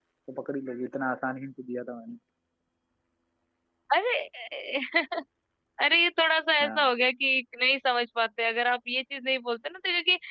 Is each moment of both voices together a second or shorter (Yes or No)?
Yes